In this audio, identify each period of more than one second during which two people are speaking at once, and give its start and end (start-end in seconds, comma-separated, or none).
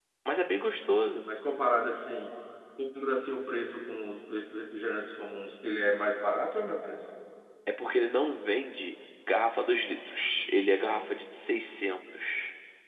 none